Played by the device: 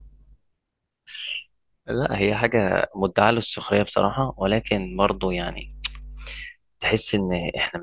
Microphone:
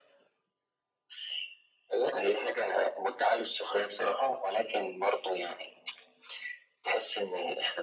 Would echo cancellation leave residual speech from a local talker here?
No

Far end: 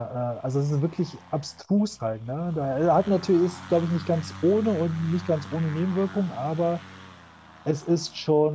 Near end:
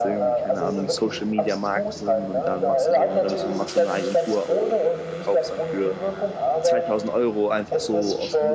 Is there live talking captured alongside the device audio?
Yes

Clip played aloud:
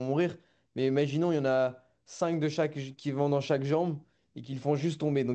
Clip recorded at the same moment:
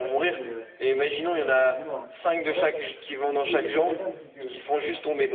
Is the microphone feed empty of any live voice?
No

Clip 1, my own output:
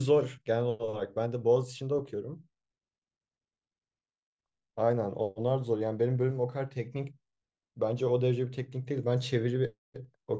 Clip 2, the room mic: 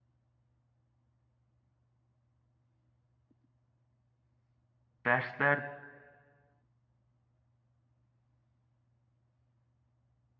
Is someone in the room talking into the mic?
Yes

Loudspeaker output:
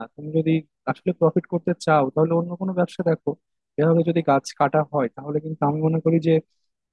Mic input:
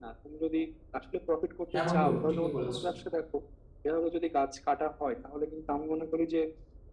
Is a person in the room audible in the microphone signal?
Yes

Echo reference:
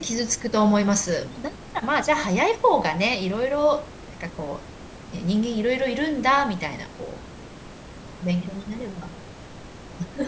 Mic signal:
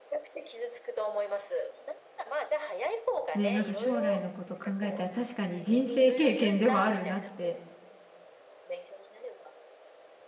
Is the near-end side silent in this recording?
No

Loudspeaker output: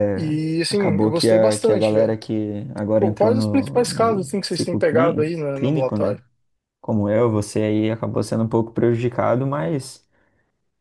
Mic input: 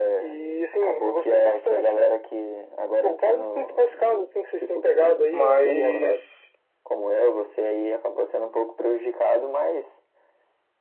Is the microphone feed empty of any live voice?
No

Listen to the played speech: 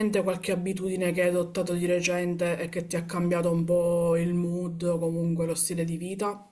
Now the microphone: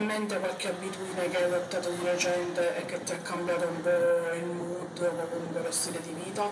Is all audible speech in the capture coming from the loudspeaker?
Yes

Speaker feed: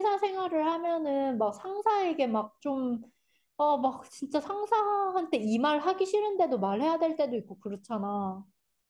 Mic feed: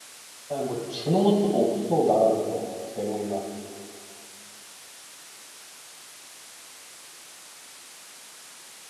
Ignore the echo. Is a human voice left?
Yes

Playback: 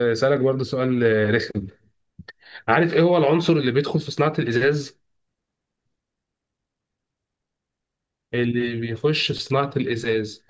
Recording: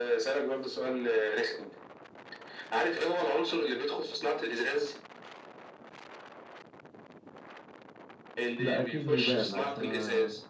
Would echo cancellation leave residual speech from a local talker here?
Yes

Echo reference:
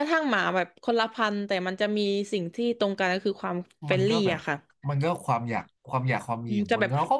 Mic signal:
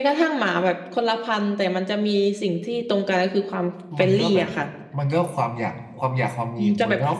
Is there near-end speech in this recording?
No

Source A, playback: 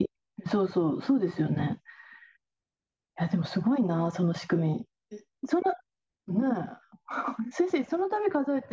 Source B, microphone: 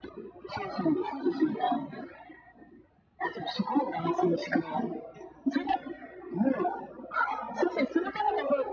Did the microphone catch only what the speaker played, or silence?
Yes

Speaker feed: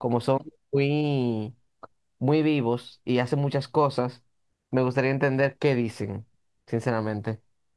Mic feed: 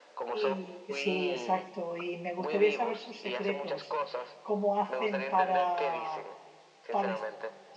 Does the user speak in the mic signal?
Yes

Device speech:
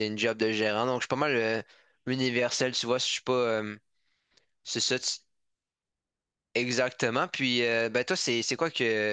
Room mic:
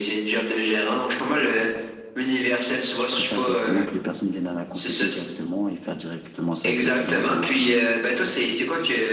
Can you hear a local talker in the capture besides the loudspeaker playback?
Yes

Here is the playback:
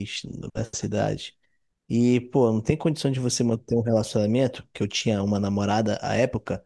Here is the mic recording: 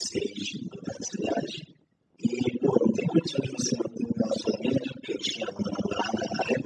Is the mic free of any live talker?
Yes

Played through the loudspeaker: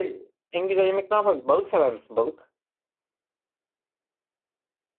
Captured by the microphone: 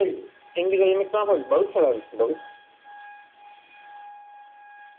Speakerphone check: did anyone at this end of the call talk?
No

